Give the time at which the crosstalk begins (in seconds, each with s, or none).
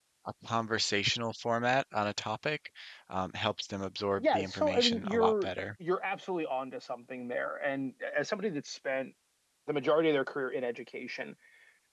4.2 s